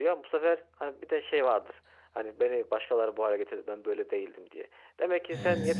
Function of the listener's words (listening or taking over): listening